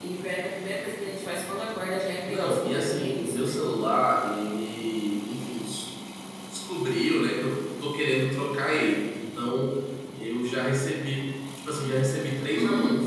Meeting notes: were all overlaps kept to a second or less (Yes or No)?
No